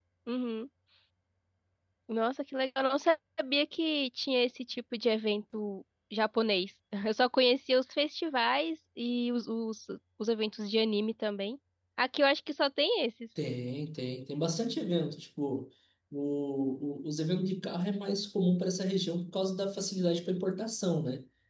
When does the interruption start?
none

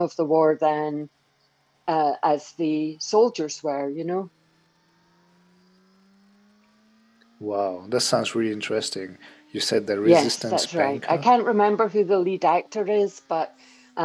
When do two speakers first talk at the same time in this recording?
10.0 s

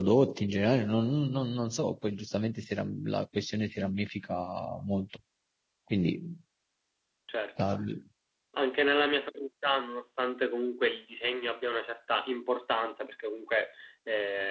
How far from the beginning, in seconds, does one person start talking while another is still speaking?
none

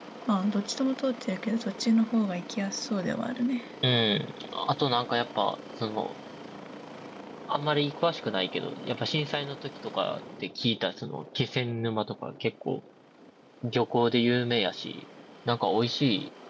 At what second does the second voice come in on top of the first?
none

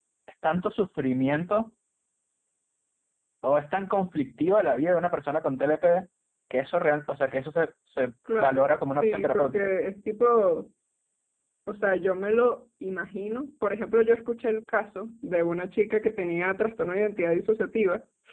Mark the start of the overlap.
8.3 s

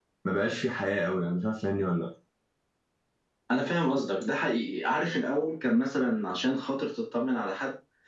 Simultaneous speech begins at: none

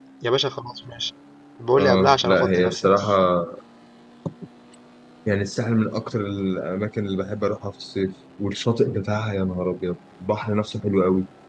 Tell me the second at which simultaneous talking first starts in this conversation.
1.8 s

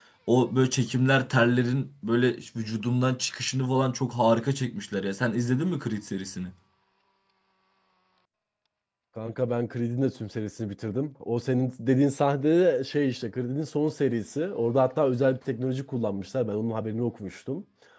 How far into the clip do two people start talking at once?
none

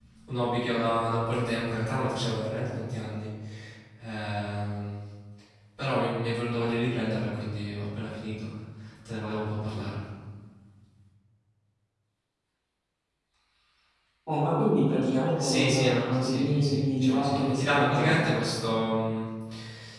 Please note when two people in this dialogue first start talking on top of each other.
15.4 s

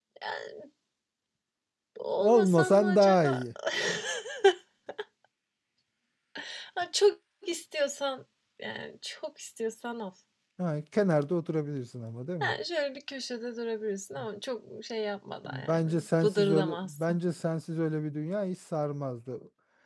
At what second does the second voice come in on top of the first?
2.2 s

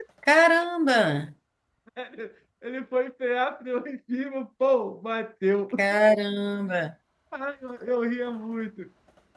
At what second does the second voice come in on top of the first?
none

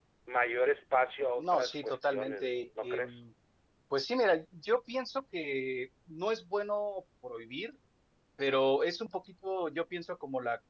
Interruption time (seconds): 1.4 s

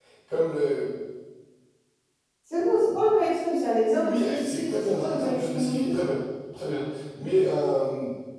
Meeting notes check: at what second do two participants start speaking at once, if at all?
4.0 s

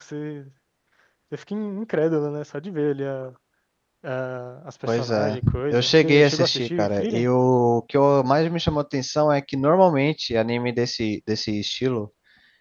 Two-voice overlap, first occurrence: 4.9 s

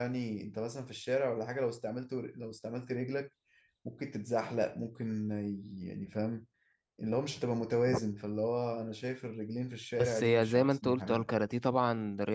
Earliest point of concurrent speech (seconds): 10.0 s

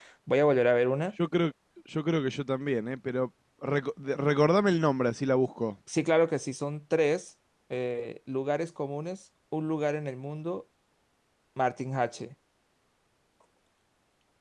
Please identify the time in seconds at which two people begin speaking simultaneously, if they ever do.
none

